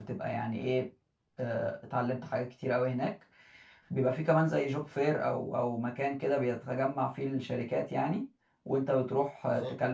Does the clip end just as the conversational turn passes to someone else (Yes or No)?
No